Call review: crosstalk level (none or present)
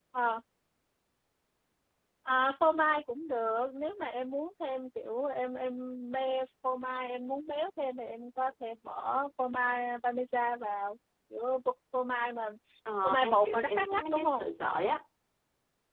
present